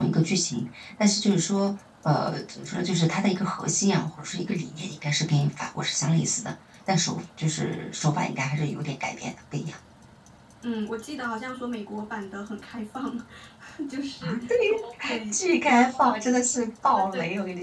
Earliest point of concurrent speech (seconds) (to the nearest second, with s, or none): 14 s